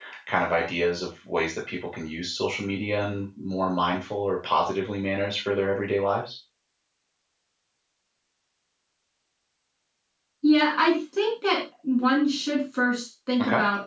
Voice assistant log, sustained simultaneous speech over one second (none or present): none